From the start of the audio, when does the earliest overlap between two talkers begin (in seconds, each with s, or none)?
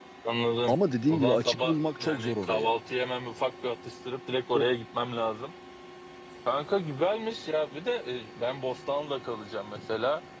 1.1 s